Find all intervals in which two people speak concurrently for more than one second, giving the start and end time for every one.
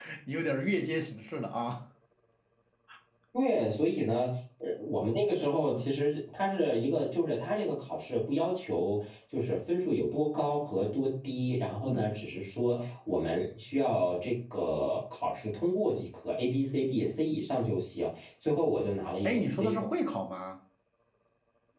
none

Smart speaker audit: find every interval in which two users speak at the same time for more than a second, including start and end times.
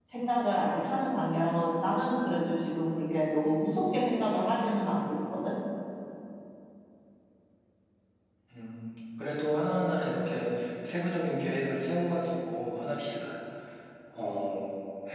none

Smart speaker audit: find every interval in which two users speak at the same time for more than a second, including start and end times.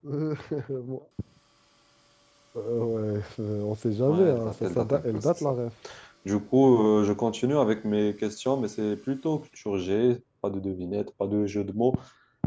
4.1-5.5

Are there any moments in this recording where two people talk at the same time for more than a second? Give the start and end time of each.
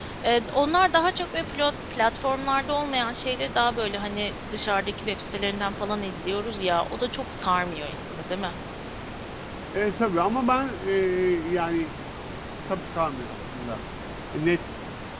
none

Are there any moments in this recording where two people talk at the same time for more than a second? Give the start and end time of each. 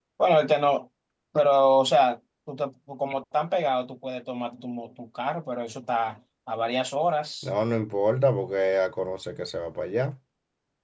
none

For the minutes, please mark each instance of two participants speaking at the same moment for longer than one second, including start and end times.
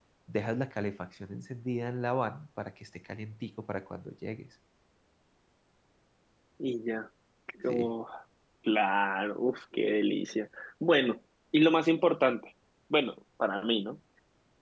none

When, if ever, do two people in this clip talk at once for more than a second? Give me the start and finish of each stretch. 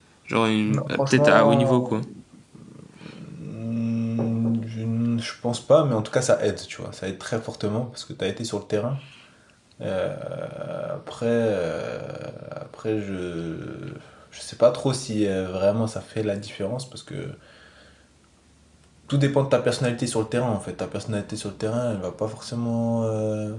0.7-1.9

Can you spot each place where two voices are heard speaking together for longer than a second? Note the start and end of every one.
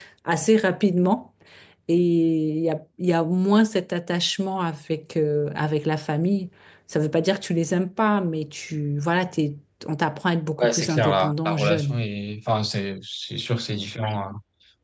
10.6-12.0

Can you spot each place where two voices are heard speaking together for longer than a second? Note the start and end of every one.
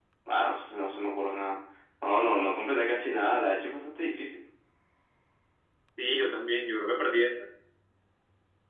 none

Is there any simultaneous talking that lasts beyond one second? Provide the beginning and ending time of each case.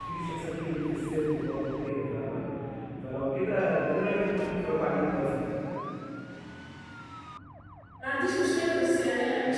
none

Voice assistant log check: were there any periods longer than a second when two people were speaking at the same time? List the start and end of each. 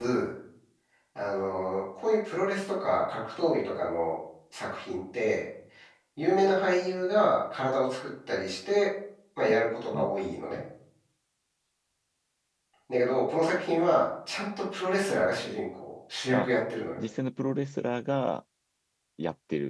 none

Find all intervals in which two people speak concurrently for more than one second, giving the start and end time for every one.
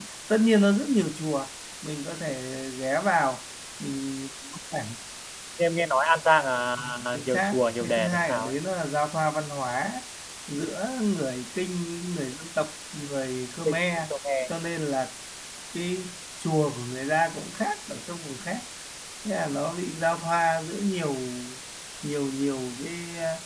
7.1-8.5

